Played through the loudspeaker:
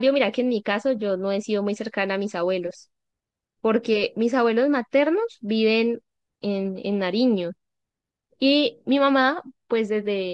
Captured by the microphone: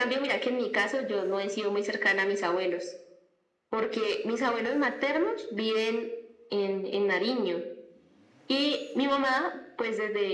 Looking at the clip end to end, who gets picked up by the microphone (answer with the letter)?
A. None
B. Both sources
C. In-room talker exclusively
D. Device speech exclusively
D